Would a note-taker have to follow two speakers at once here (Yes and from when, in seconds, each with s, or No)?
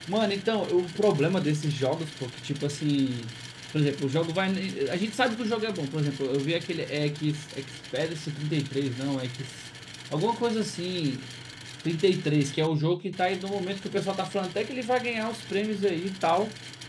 No